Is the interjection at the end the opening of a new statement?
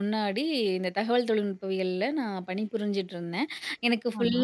No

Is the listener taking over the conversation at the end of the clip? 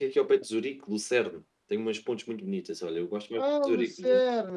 Yes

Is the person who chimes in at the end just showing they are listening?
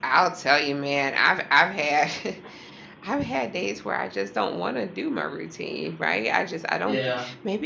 Yes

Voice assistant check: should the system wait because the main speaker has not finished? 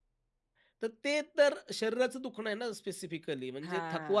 Yes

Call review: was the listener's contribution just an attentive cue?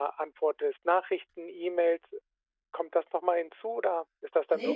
No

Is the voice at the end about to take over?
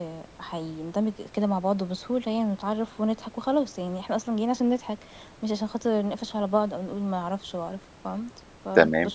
Yes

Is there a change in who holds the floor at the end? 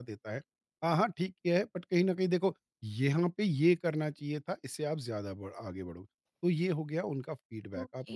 No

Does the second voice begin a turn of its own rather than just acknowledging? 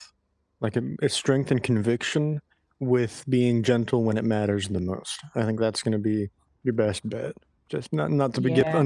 No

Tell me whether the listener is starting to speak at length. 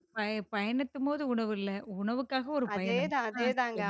Yes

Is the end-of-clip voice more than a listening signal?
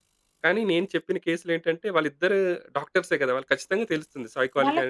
Yes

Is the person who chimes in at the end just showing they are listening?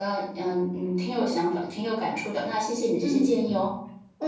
No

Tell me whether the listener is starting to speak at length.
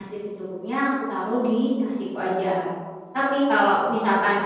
No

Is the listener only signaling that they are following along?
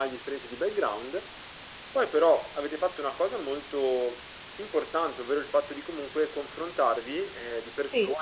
Yes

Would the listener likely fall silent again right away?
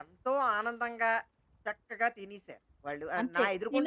No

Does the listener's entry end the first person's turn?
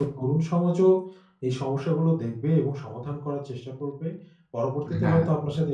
No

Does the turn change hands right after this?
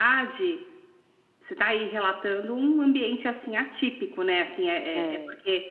No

